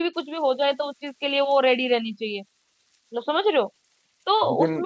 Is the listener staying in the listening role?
Yes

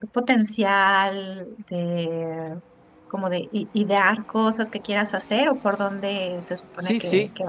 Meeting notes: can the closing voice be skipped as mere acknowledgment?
No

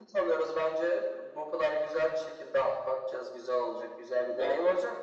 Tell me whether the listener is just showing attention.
Yes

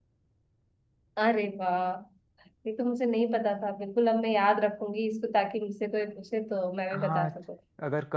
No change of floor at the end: No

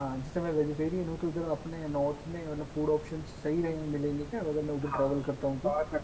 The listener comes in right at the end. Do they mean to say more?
Yes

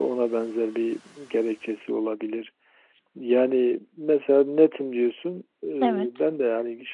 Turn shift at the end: No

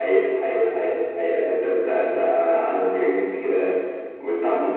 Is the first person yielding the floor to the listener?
No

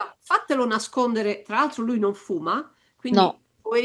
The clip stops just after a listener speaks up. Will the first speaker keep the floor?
Yes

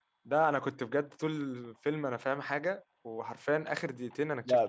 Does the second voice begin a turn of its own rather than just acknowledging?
Yes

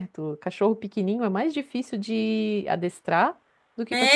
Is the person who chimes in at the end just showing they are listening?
No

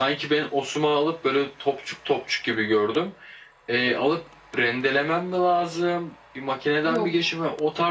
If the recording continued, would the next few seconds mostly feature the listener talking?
No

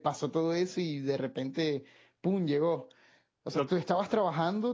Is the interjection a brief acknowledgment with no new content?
Yes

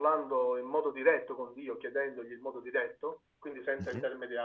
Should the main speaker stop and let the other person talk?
No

